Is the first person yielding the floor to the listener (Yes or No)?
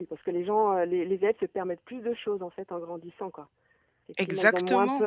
No